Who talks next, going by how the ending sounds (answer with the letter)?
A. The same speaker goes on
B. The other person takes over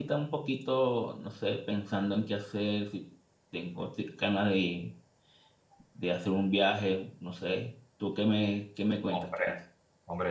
B